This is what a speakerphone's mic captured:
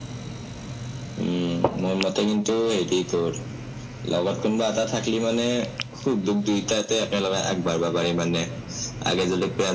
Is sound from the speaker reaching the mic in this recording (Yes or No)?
Yes